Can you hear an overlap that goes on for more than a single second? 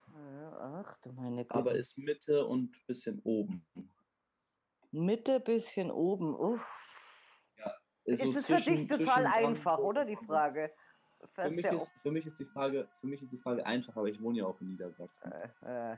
Yes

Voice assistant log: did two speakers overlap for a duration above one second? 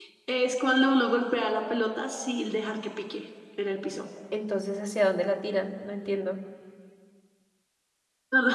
No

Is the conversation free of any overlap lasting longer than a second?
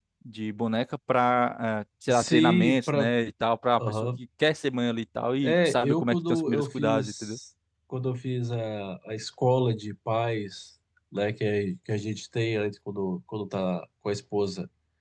No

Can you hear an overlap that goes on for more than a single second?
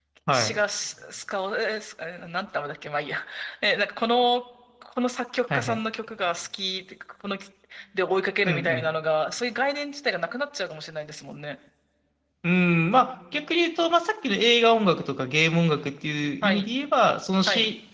No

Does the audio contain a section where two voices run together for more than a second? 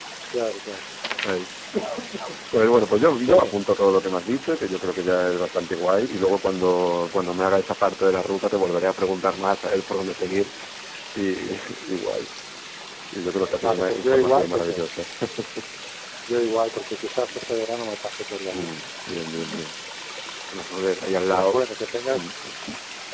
Yes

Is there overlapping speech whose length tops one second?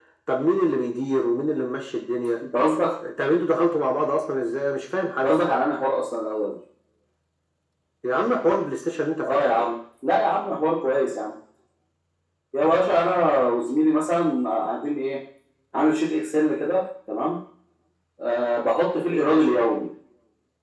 No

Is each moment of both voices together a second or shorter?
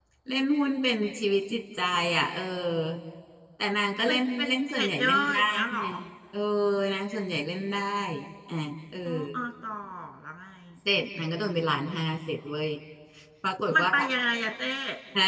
No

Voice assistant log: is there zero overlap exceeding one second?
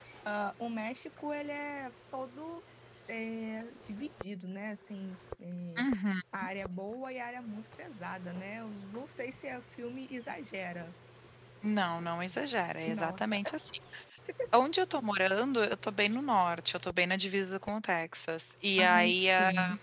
Yes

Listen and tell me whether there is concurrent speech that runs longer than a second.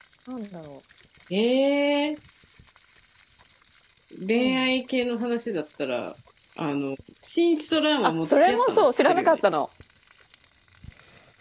Yes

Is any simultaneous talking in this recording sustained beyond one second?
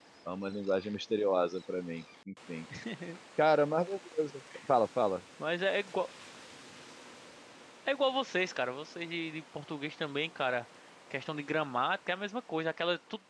No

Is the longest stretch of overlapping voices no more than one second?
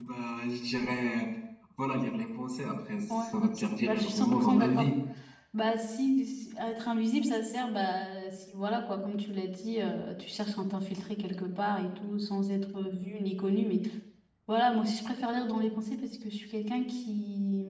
No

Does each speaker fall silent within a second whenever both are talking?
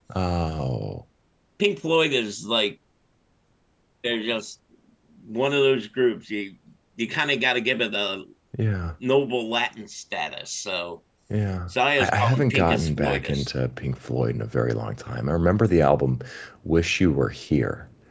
No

